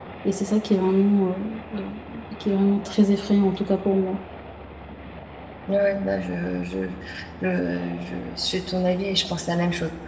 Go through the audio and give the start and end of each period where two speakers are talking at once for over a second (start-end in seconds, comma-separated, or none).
none